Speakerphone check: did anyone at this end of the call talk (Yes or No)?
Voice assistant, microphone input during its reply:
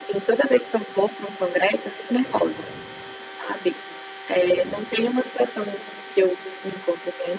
No